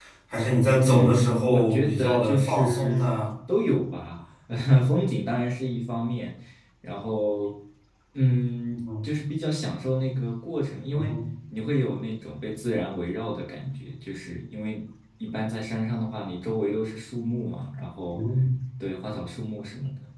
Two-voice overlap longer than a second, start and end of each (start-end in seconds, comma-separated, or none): 0.8-3.1